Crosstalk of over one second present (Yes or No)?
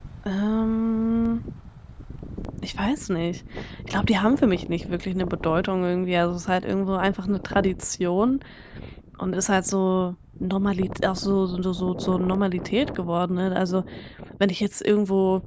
No